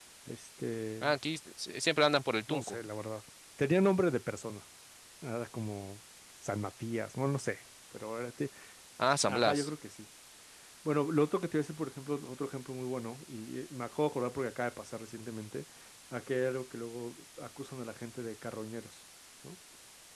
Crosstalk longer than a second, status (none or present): none